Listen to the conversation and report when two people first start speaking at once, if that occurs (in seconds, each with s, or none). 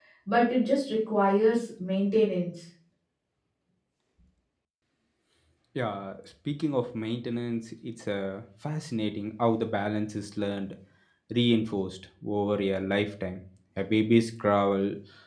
none